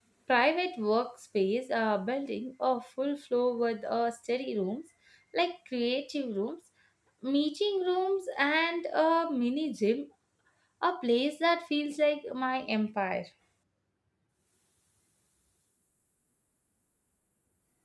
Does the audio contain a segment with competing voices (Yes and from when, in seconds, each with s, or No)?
No